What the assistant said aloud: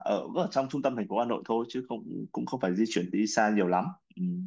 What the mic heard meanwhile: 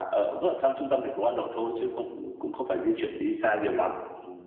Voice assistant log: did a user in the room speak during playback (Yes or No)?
No